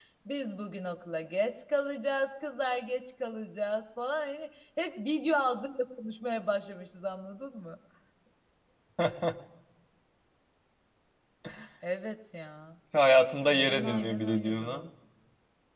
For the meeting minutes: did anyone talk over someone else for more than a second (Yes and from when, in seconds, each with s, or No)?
Yes, from 13.5 s